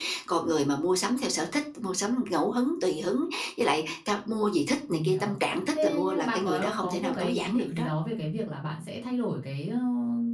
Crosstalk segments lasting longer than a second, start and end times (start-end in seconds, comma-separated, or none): 5.8-7.9